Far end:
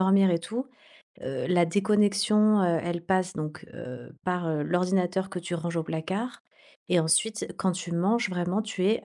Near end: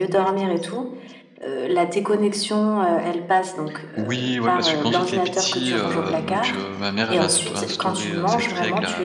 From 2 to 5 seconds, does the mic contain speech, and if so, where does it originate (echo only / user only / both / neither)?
both